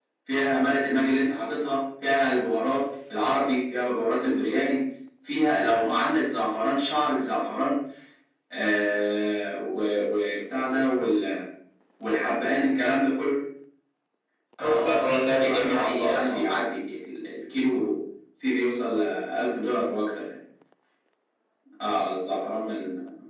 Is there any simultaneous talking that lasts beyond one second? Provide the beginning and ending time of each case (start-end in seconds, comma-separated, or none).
14.6-16.4